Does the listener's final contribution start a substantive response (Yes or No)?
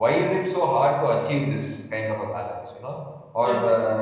No